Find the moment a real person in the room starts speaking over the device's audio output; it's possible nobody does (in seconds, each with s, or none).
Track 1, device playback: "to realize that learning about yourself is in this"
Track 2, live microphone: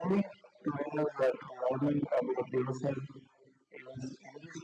none